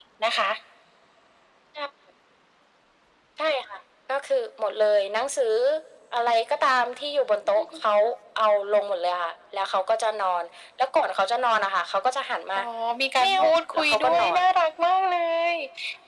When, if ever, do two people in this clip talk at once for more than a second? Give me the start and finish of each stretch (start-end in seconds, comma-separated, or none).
13.2-14.4